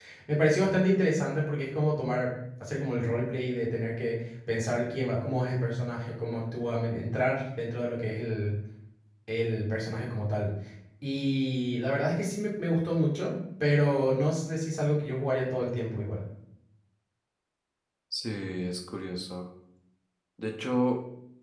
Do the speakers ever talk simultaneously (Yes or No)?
No